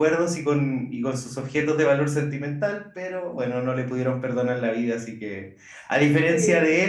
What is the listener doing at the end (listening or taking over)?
listening